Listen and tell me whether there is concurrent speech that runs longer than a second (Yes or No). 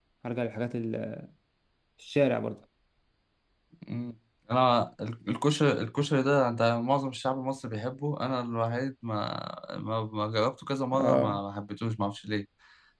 No